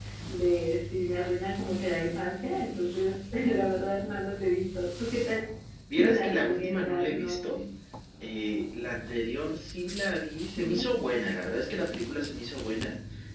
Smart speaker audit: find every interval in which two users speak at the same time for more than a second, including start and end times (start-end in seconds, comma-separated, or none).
6.0-7.6